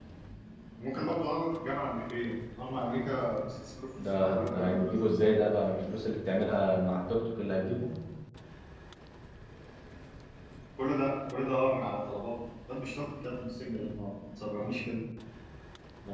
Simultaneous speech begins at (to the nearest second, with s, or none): 4 s